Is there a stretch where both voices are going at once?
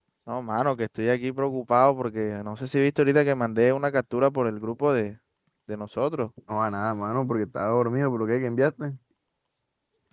No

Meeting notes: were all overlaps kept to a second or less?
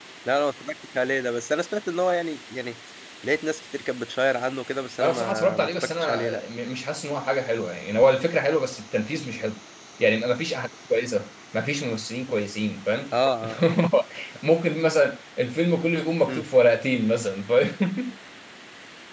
No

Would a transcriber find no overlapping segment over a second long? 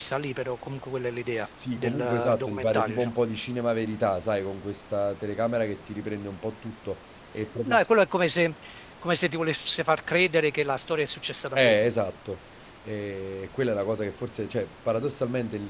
No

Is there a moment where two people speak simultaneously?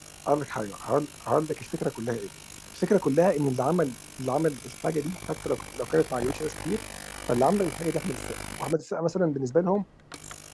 No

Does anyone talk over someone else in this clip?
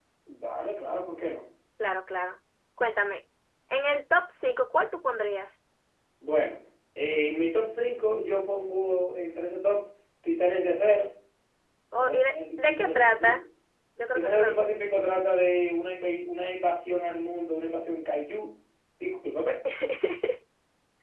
Yes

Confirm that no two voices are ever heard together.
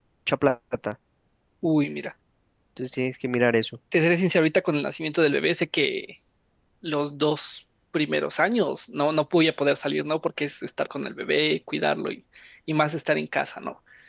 Yes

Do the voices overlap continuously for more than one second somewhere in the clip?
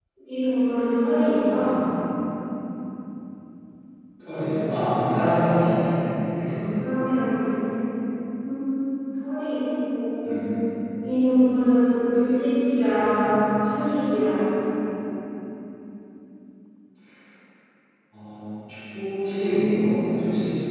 No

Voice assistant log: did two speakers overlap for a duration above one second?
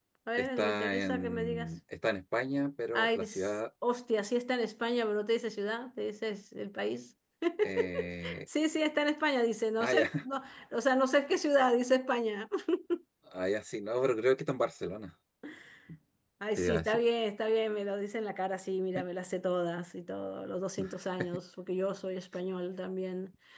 Yes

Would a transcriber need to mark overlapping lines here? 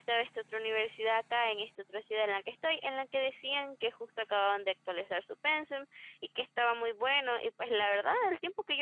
No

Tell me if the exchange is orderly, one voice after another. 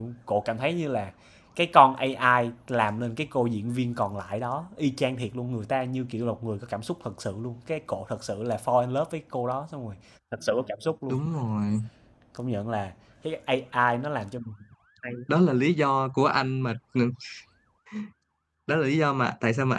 Yes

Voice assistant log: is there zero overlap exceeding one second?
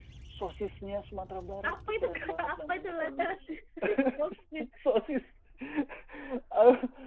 No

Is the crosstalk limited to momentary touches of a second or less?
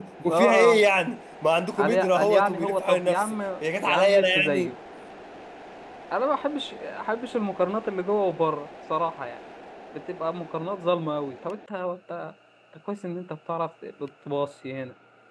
No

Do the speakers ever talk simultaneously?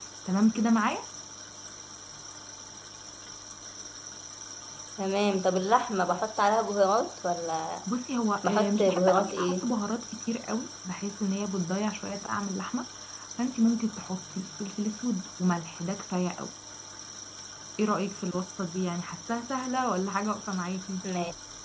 Yes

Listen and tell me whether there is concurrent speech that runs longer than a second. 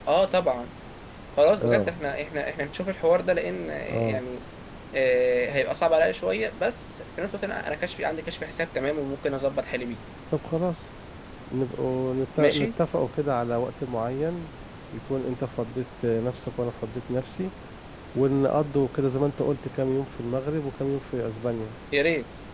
No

